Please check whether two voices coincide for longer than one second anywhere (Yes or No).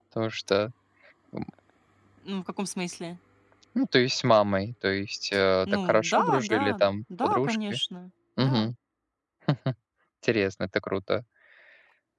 Yes